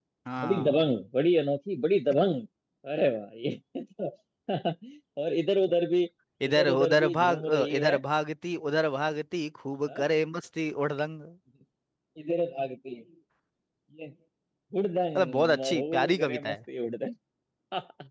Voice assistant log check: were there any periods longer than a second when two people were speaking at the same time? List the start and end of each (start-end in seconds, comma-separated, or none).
6.5-8.0, 15.2-16.6